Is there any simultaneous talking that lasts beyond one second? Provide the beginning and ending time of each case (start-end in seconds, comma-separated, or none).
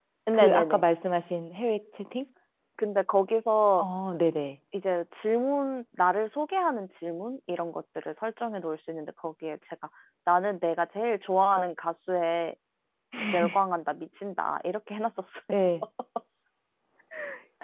none